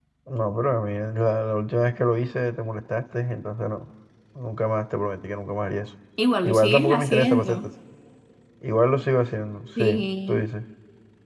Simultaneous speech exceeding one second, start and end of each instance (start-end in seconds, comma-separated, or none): 6.4-7.7